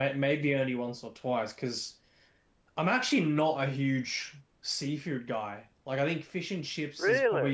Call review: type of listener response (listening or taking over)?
listening